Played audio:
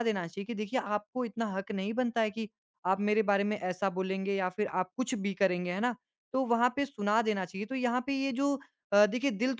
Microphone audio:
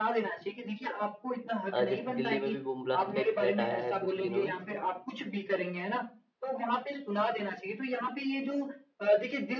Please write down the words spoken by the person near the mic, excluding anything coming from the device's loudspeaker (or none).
अ, जैसे दिल्ली में भी बम ब्लास्ट का एक थ्रेट आया है कुछ ही दिनों में।